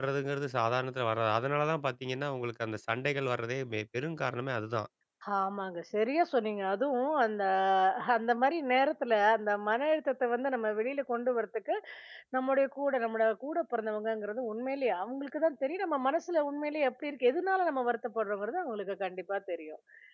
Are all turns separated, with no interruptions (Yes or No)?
Yes